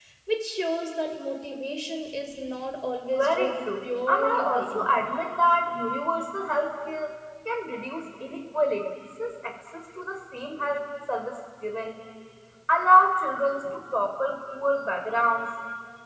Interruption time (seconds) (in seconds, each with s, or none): 3.1 s